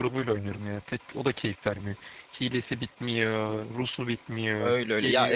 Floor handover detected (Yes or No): Yes